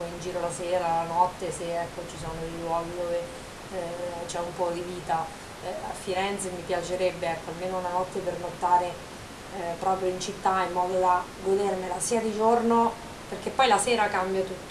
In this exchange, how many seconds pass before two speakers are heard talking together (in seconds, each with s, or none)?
none